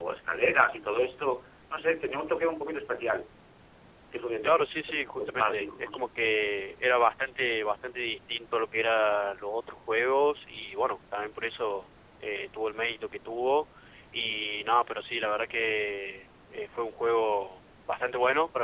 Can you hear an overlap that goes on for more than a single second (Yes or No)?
Yes